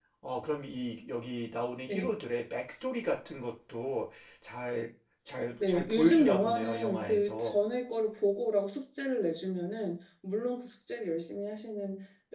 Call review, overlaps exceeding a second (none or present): present